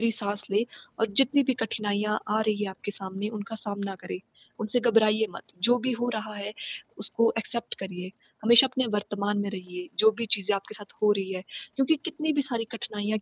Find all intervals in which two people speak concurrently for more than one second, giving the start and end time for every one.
none

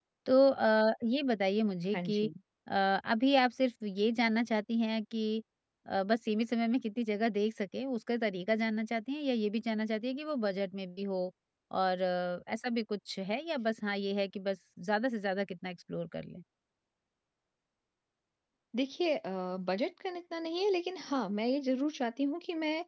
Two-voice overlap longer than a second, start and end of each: none

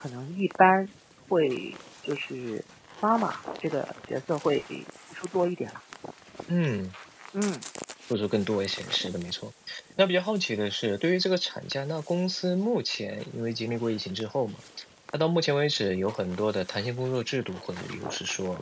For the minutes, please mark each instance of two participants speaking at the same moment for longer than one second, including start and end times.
none

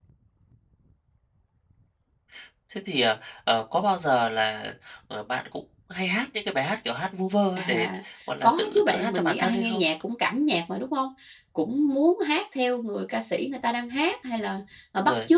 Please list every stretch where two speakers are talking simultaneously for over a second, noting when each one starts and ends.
8.4-9.8

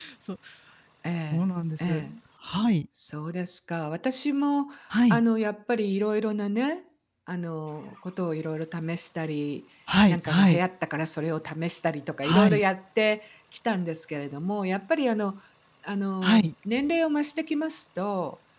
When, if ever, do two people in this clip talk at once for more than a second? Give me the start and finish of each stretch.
none

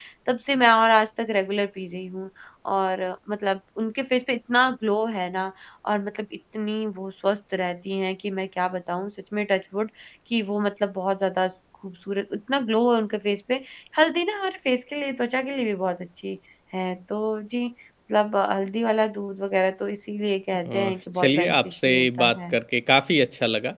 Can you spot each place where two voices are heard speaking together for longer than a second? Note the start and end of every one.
21.2-22.6

